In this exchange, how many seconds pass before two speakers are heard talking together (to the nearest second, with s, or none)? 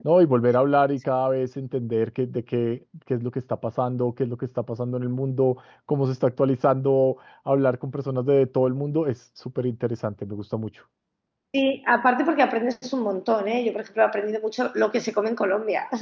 none